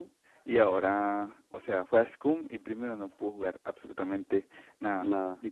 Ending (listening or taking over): listening